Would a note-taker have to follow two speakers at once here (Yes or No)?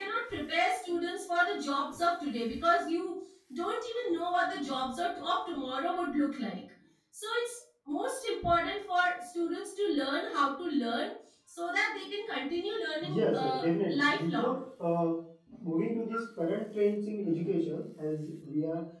Yes